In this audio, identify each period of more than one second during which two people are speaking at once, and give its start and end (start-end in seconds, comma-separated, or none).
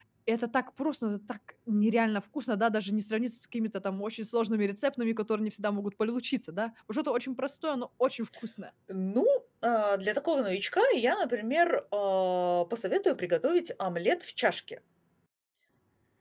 none